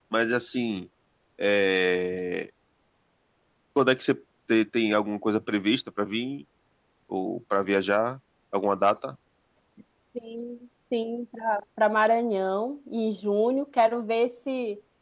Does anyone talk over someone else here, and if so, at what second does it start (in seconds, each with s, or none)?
none